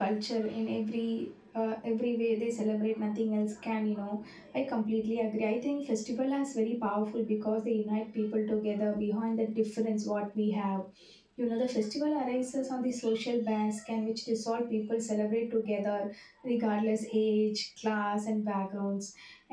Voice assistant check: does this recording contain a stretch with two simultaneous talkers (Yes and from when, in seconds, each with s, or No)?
No